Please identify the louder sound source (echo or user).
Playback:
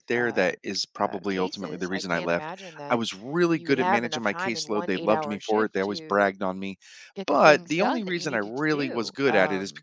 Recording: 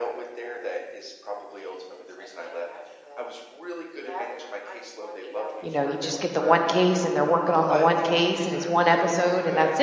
user